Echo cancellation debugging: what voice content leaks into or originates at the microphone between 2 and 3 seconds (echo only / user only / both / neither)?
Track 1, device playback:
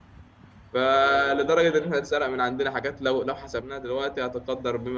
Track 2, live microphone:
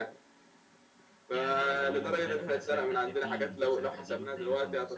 both